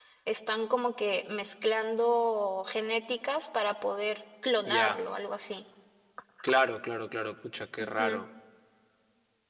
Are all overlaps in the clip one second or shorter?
Yes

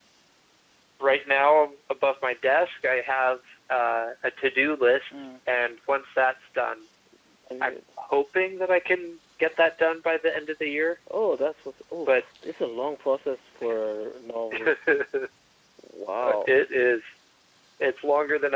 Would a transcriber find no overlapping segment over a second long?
Yes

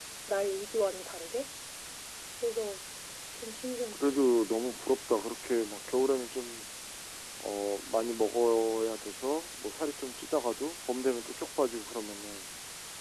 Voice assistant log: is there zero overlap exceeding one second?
Yes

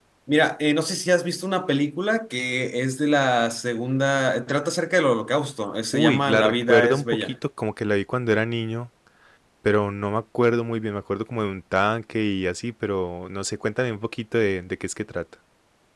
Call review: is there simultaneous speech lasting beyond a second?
Yes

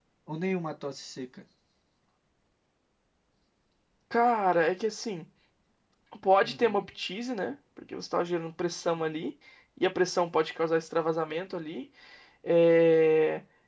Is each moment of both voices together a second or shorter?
Yes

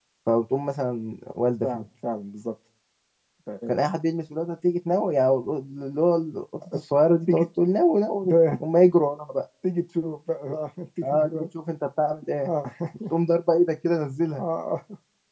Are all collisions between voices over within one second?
Yes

